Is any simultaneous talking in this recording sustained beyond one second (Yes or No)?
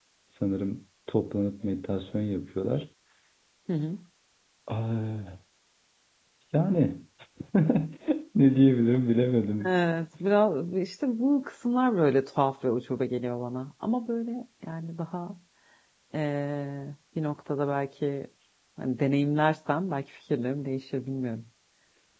No